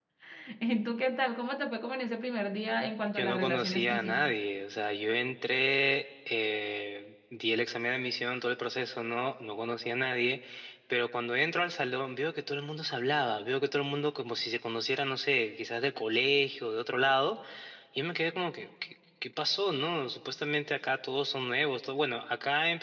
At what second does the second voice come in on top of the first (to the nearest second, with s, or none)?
3 s